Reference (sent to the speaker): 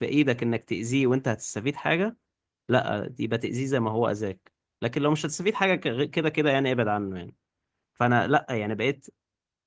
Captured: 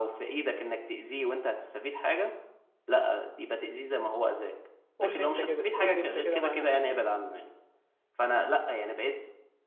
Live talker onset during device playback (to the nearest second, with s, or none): 5 s